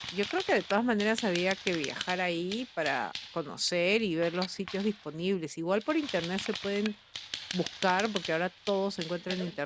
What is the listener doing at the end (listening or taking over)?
listening